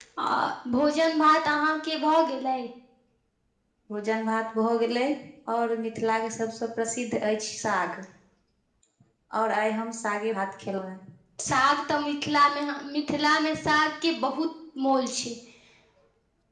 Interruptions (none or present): none